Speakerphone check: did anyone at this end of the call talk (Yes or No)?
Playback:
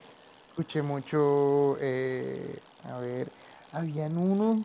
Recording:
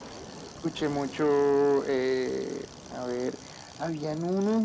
No